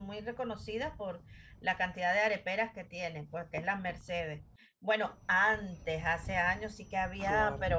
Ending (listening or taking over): listening